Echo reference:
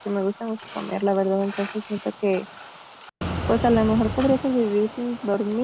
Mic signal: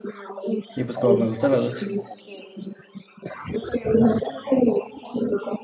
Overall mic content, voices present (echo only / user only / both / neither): both